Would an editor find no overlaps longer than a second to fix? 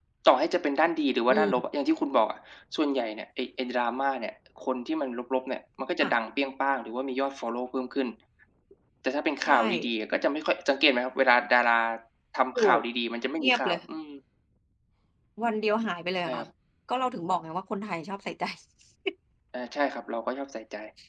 Yes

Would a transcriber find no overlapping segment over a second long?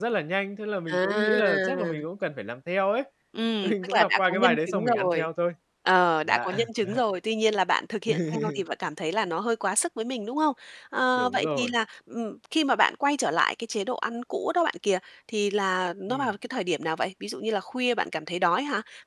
No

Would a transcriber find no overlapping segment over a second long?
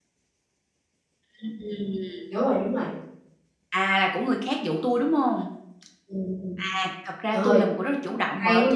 Yes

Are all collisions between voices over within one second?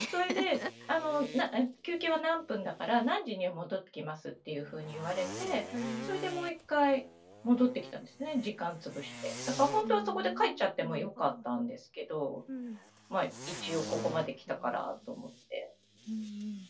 No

